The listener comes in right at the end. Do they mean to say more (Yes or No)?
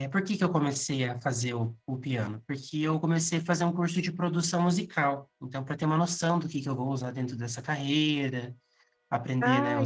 No